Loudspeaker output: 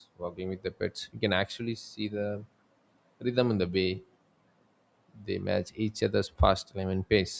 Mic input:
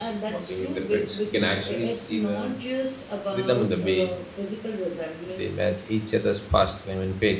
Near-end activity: present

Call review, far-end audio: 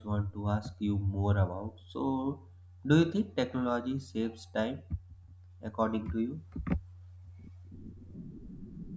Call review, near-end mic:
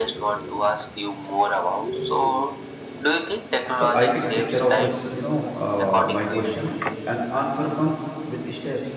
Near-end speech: present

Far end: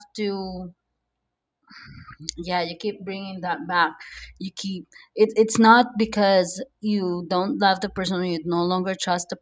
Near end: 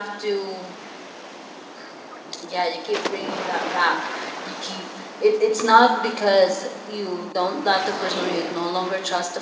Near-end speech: none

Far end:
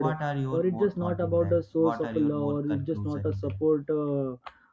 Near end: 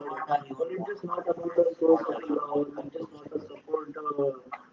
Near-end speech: none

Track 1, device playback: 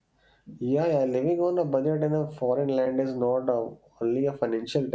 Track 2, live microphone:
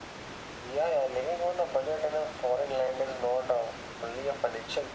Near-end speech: none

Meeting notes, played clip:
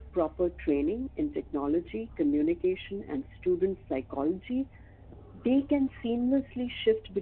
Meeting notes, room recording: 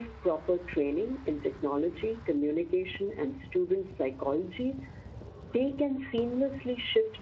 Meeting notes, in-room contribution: none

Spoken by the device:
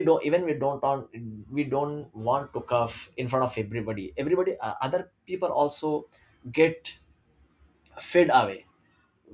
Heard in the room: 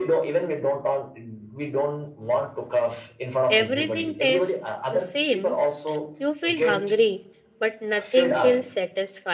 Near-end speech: present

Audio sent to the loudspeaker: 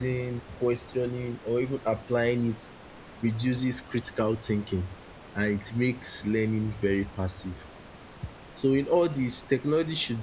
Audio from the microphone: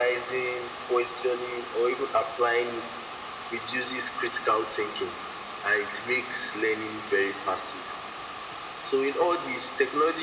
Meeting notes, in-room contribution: none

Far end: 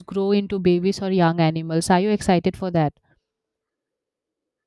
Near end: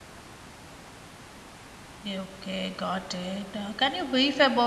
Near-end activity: present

